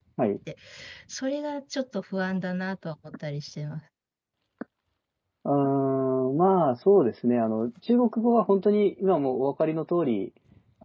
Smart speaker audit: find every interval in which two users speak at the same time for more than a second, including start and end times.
none

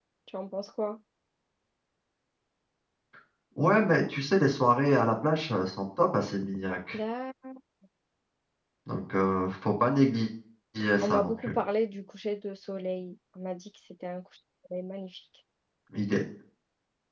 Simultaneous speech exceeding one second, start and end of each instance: none

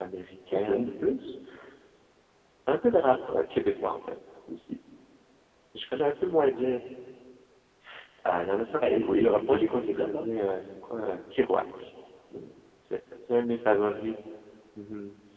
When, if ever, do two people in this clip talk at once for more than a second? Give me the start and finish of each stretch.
8.8-10.3

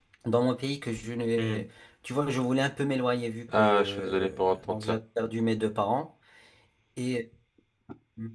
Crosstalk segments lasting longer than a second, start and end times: 3.6-5.0

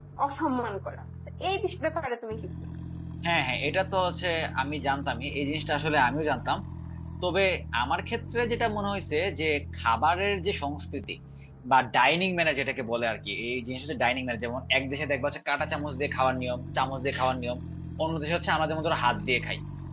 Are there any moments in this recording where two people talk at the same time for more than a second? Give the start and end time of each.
none

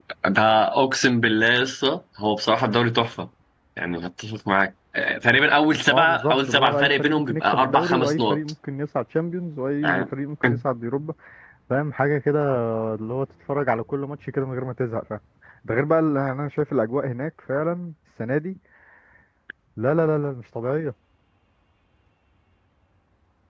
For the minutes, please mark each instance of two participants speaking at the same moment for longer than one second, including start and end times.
5.9-8.4

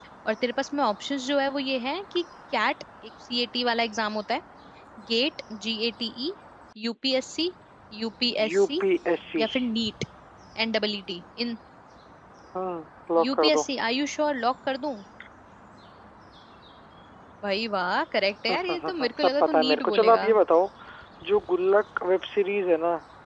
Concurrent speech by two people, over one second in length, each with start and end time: 18.6-20.3

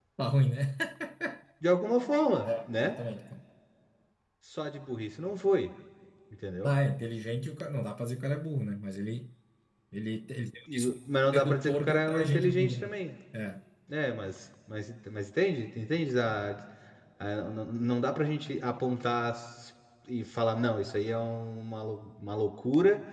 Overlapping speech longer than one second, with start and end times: 11.3-12.9

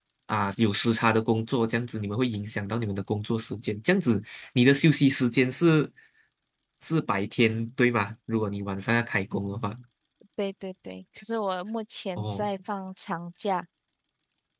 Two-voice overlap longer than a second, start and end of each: none

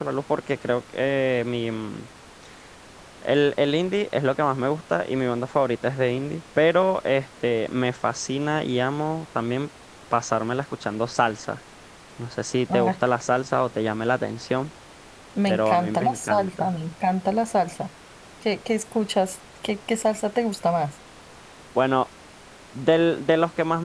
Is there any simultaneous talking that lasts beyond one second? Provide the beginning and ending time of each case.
15.5-16.7

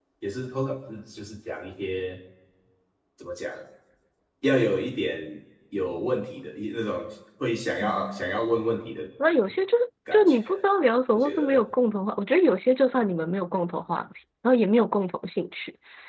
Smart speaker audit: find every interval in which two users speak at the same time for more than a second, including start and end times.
none

